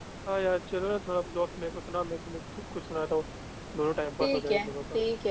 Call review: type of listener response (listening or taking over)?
taking over